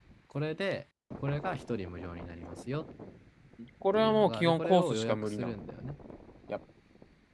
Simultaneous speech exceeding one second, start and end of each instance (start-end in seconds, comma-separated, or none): 4.0-5.6